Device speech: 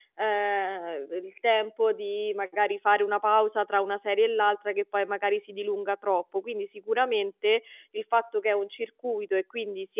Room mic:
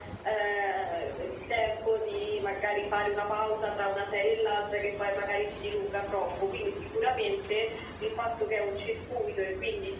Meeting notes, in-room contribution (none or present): none